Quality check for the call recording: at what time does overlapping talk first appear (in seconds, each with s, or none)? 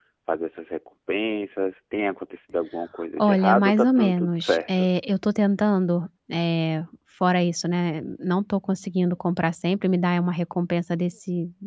3.2 s